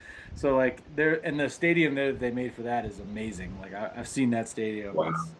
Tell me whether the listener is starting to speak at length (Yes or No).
No